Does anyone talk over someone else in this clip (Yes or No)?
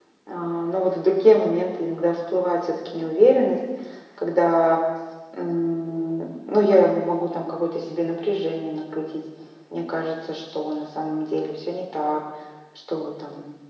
No